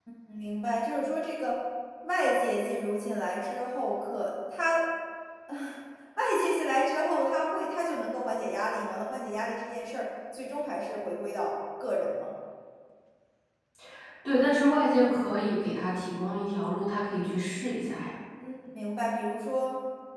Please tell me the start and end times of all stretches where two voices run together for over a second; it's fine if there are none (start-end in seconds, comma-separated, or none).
none